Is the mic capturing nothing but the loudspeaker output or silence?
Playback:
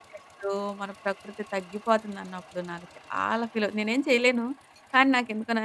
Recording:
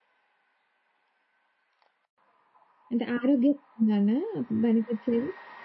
No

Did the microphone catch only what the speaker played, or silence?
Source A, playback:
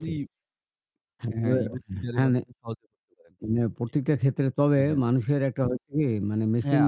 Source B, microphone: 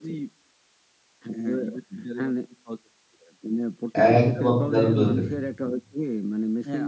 No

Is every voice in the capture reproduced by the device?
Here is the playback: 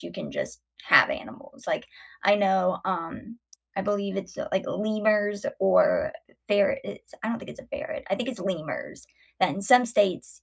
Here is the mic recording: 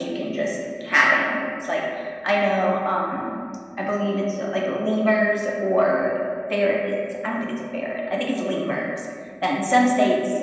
Yes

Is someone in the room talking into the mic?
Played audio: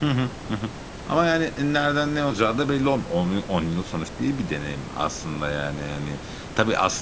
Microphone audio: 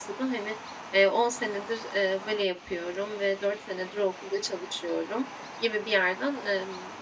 Yes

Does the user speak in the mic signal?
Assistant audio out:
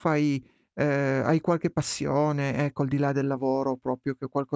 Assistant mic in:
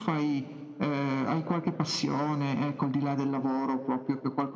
No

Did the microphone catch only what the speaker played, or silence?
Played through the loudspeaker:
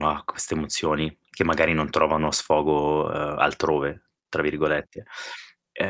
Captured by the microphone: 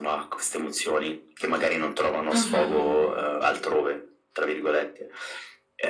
No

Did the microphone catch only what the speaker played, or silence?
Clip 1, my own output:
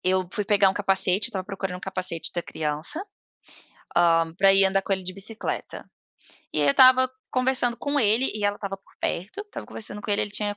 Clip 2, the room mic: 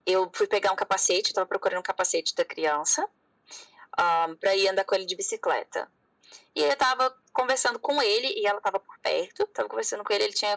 Yes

